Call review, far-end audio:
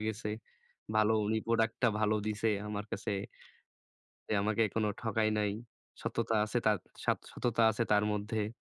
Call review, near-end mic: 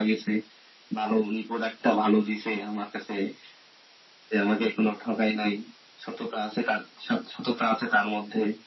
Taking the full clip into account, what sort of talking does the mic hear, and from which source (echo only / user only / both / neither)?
echo only